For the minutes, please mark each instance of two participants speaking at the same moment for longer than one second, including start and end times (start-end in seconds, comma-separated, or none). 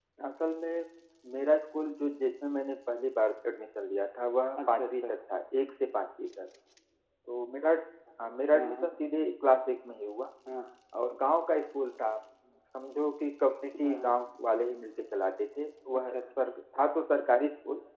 none